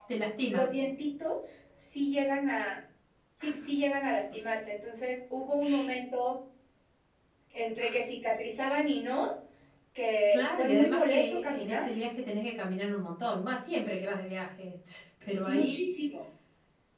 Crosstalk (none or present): present